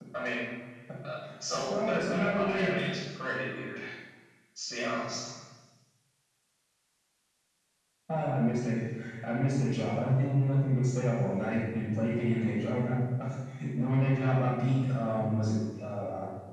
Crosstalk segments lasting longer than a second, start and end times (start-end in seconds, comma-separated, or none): 1.5-2.7